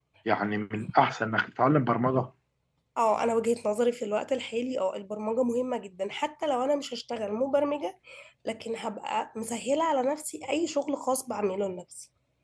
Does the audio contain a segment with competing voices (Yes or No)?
No